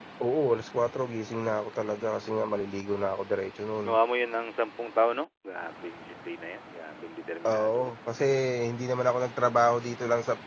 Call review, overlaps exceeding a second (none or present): none